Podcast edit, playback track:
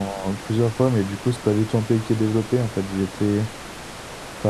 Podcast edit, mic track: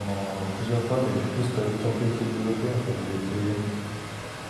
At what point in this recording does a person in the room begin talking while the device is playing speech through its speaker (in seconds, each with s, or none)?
none